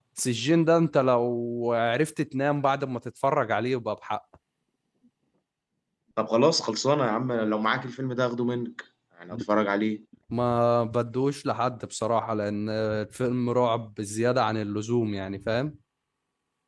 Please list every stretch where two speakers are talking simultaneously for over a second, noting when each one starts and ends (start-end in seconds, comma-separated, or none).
none